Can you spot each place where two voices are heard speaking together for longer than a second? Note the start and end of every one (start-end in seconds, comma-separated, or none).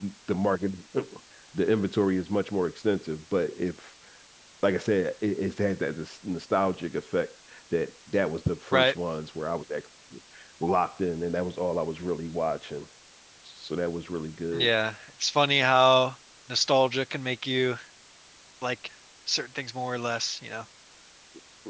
none